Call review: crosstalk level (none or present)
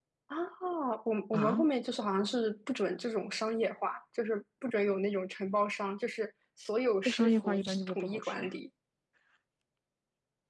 present